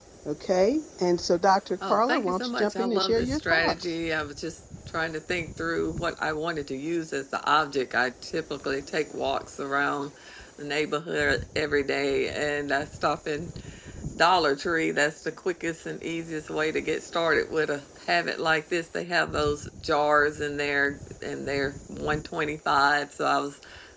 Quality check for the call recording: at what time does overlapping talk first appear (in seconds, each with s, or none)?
1.8 s